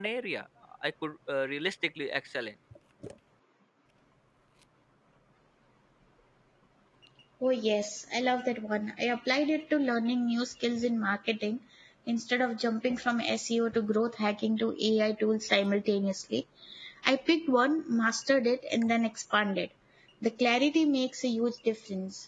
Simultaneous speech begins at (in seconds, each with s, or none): none